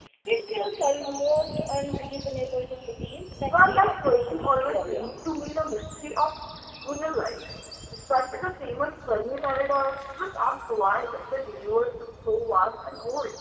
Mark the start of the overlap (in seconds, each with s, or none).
3.5 s